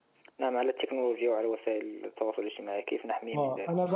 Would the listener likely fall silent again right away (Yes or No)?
No